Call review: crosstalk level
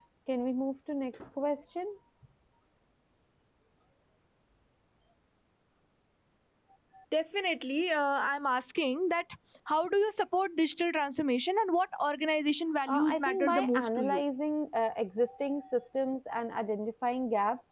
present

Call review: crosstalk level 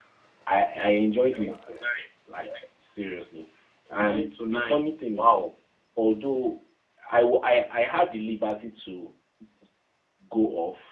present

